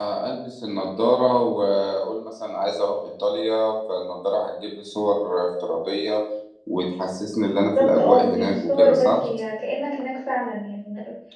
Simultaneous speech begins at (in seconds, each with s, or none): 7.8 s